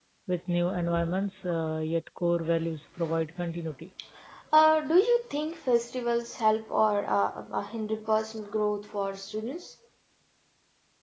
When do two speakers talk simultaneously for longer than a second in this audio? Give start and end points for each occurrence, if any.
none

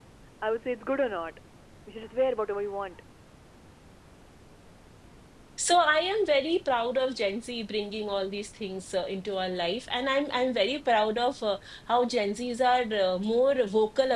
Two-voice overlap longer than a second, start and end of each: none

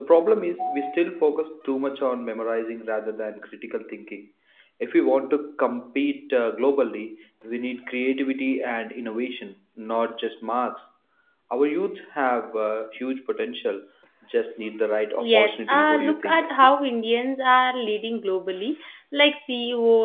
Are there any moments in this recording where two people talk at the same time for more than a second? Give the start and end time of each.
15.2-16.4

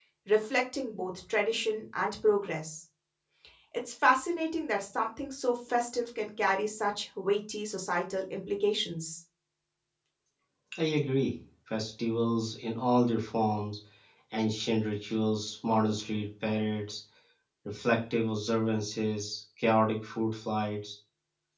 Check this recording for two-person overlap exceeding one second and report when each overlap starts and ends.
none

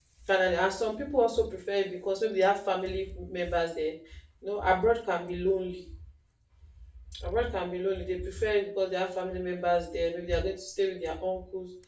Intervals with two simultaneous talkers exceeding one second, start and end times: none

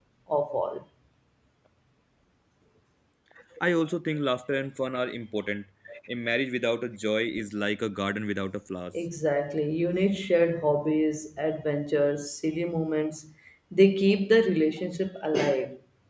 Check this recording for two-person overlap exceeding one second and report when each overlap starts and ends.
none

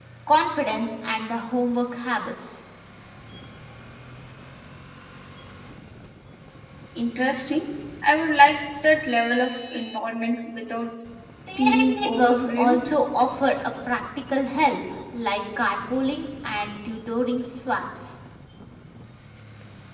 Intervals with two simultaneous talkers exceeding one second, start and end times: 11.6-12.8

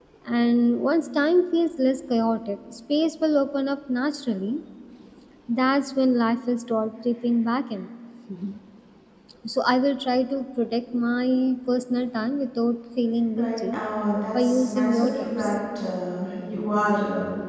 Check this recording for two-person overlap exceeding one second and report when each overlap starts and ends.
14.3-15.5

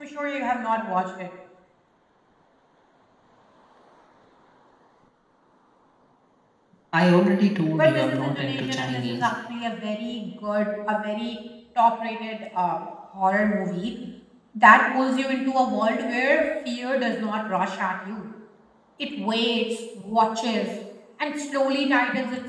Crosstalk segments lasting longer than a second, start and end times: 7.7-9.3

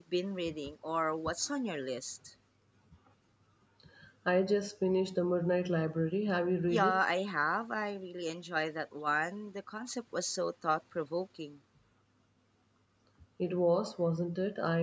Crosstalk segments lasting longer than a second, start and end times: none

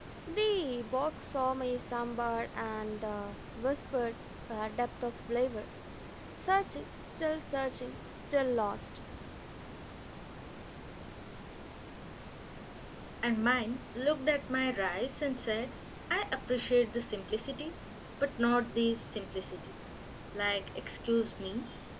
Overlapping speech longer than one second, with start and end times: none

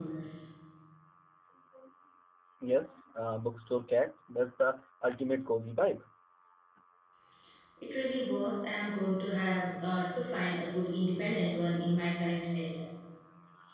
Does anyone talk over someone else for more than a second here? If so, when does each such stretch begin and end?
none

